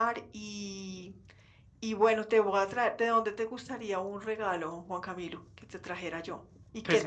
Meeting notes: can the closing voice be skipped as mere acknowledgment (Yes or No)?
No